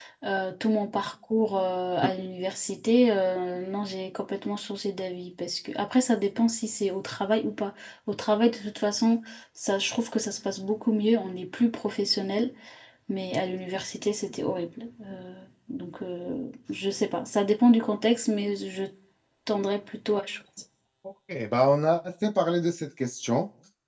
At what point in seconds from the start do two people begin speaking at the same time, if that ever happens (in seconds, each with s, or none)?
none